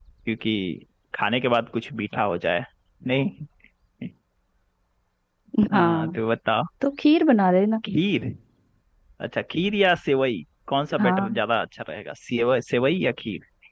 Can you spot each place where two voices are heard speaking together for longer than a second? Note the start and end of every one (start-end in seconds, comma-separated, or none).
none